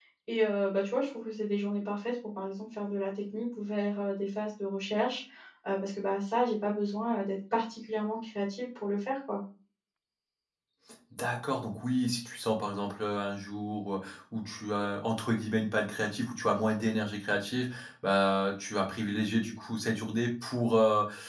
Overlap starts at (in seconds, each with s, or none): none